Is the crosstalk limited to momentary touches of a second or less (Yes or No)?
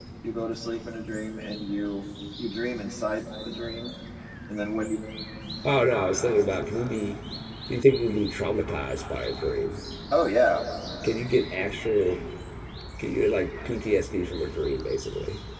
Yes